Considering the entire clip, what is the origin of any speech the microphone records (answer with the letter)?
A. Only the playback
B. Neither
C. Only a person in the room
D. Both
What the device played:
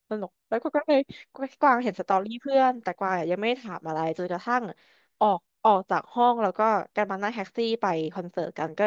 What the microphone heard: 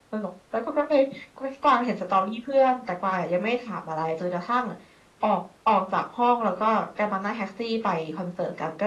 A